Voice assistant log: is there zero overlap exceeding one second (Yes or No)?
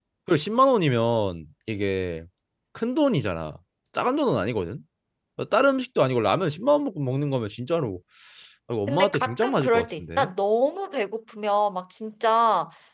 No